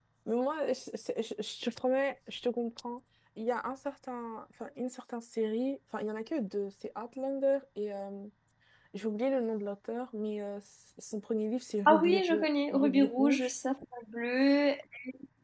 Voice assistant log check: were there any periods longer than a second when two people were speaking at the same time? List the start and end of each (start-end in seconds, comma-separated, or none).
11.9-13.5